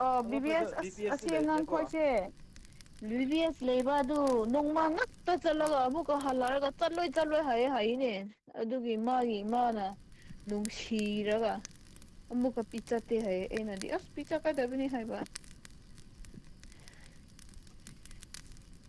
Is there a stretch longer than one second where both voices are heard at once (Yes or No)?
Yes